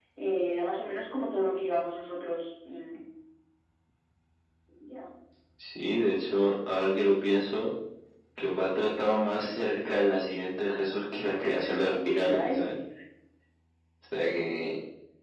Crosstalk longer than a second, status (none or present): present